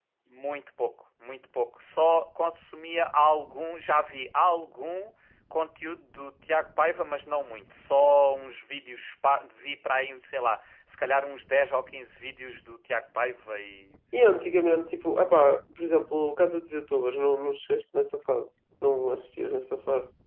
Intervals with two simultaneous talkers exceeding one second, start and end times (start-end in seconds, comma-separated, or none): none